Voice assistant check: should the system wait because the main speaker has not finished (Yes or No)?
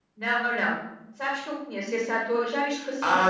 No